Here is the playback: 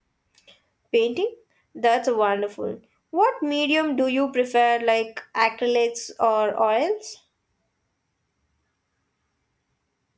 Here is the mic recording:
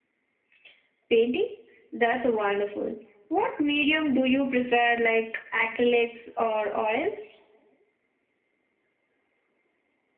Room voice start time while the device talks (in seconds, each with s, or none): none